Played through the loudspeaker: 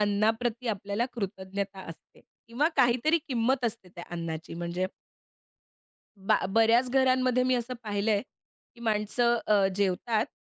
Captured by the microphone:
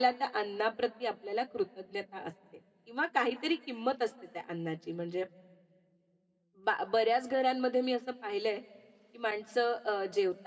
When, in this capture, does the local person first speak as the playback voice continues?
none

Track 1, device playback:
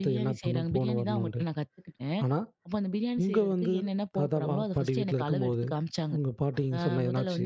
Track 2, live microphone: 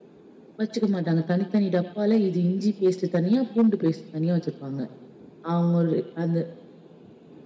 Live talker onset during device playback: 0.6 s

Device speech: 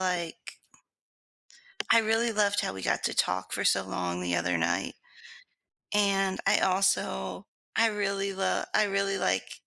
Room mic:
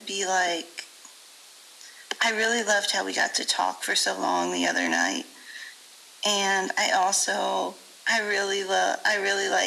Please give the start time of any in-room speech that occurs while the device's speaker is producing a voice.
none

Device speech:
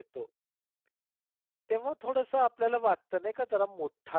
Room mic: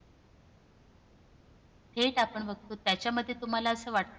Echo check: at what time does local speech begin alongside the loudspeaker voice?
2.0 s

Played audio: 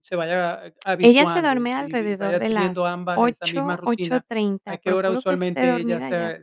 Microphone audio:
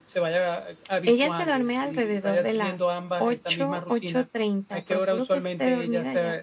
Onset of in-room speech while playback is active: none

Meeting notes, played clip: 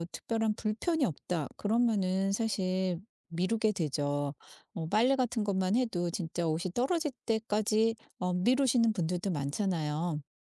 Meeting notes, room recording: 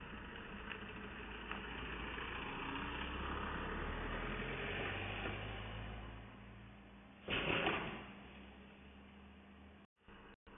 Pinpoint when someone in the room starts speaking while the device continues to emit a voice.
none

